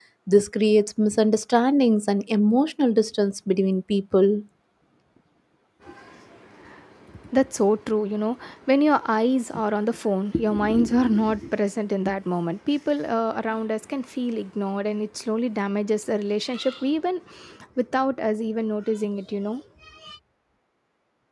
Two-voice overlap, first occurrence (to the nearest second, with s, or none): none